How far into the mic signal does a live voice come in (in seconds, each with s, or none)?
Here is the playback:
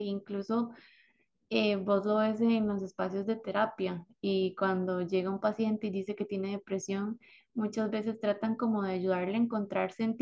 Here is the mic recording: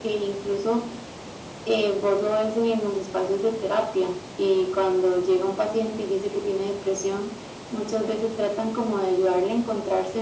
none